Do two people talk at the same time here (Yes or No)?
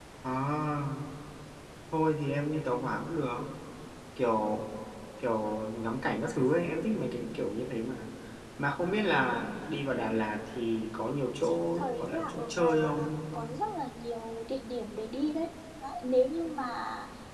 Yes